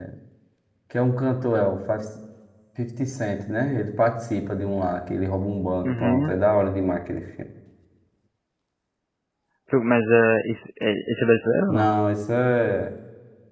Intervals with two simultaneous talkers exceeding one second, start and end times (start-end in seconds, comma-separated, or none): none